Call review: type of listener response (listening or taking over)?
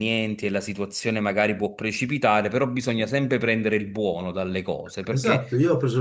taking over